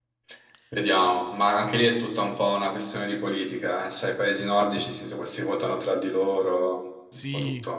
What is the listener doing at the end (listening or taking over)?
taking over